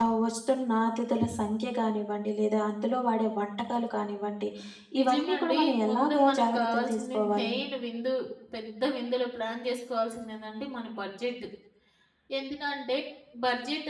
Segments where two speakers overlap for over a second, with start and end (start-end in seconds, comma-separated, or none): 5.0-7.3